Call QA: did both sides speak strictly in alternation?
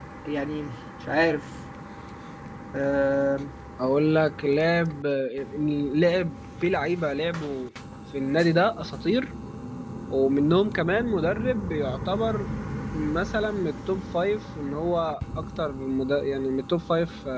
Yes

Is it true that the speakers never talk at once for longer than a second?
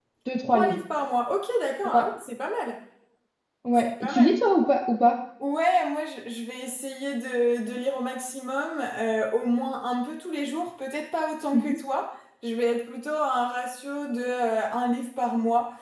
Yes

